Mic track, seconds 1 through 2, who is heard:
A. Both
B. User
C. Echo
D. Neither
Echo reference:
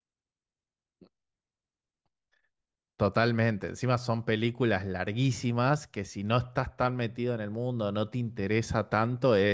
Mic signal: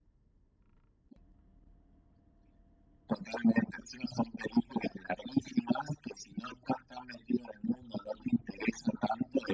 D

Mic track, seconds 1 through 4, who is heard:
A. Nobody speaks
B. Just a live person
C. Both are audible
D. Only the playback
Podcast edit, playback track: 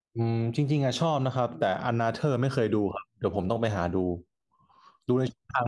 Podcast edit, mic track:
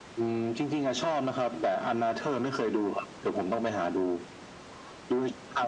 D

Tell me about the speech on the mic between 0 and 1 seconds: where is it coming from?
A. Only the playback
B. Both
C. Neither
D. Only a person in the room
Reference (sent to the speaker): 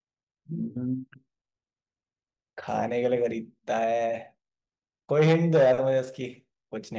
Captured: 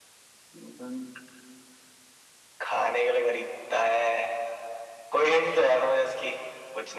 A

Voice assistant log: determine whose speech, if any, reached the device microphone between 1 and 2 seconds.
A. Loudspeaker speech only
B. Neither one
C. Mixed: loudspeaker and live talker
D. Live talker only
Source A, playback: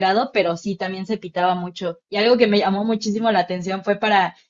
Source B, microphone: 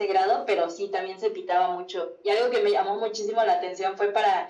A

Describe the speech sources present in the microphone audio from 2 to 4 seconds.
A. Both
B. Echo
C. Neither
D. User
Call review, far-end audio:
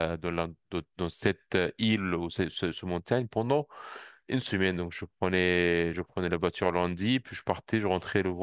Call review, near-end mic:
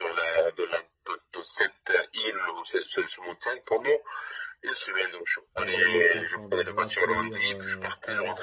B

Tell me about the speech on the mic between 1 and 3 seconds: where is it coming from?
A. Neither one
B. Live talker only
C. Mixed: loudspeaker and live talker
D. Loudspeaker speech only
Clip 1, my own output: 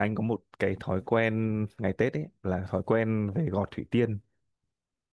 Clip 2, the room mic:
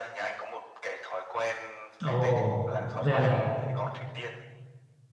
C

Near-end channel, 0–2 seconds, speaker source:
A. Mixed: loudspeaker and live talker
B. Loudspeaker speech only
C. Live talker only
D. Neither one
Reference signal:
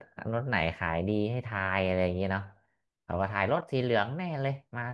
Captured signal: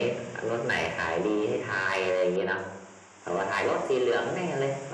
B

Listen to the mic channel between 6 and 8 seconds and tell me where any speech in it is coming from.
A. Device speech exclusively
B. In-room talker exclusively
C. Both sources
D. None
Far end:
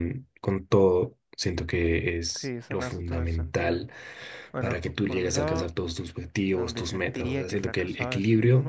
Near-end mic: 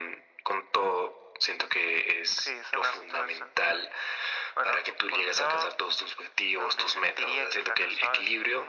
A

